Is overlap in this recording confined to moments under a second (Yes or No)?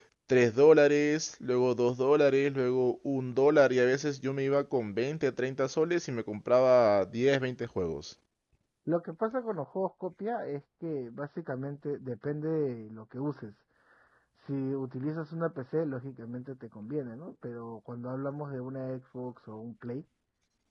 Yes